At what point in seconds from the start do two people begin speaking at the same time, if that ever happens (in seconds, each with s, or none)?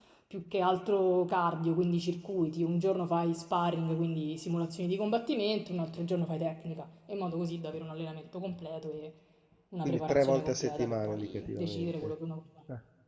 9.8 s